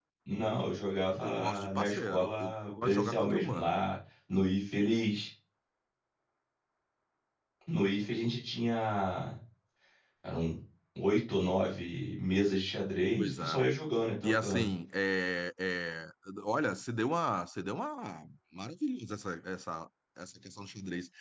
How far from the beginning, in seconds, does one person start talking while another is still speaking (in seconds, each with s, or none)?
1.2 s